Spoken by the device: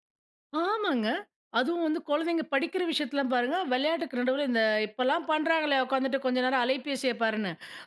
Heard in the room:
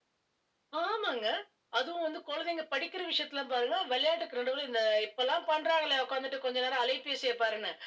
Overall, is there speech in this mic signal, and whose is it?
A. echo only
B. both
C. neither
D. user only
A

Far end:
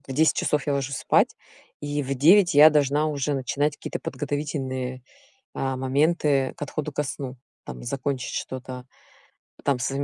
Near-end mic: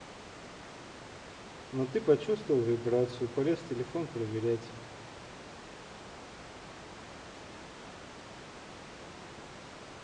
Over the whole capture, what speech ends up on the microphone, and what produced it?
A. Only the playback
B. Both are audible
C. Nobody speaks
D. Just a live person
D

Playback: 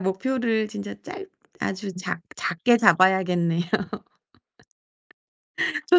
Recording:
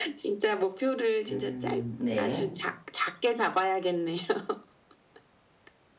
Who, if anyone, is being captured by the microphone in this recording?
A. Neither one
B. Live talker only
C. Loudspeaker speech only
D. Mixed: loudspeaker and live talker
D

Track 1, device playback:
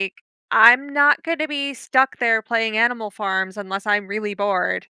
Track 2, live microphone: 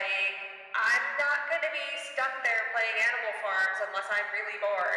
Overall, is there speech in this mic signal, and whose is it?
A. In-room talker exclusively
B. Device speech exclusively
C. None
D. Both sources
B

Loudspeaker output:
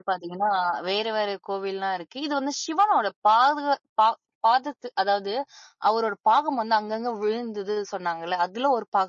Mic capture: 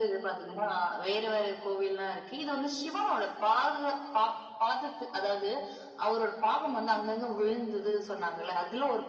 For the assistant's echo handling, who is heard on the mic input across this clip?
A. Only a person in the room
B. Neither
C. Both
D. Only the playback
D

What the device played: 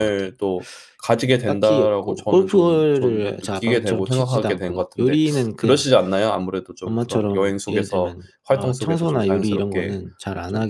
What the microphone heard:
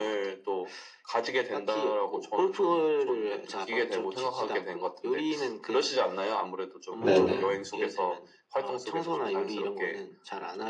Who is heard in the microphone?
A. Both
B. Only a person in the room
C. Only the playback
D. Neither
A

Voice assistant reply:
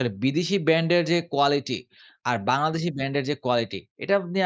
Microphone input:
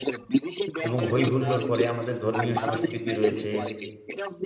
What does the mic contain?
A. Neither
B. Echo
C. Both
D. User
C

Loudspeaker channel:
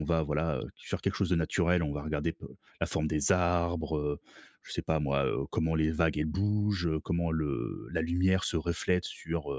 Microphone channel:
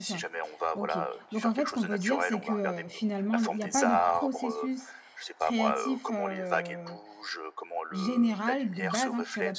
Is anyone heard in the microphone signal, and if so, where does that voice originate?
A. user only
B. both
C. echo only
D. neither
B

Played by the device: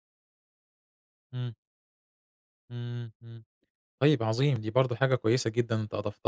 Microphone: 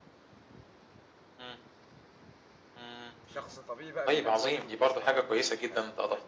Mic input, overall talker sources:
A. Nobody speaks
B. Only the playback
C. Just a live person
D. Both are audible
D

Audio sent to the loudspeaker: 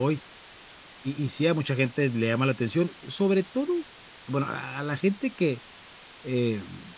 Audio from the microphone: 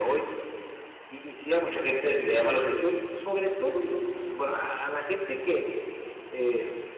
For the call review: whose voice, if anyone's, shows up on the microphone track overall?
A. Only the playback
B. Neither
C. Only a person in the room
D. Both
A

